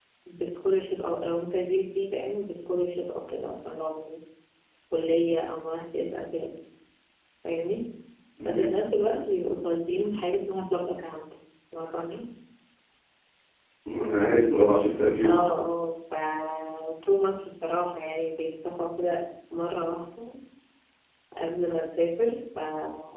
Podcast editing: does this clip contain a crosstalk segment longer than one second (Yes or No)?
No